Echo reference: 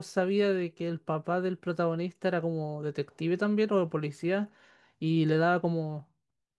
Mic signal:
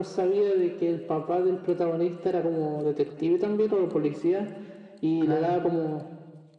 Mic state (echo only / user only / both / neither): both